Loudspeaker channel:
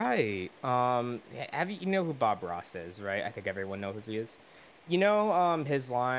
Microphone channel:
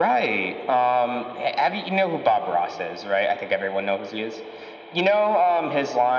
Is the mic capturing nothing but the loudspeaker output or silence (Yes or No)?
Yes